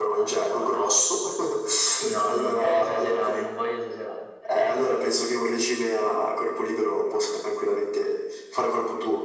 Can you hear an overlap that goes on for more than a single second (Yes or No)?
Yes